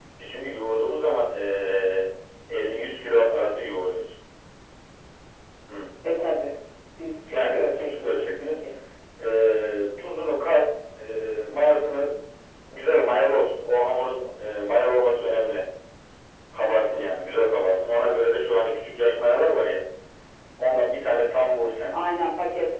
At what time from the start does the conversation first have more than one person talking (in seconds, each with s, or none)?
7.3 s